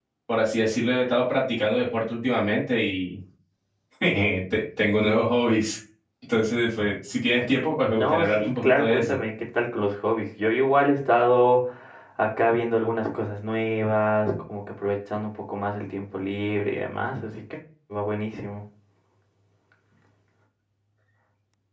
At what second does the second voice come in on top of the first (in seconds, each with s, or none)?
8.0 s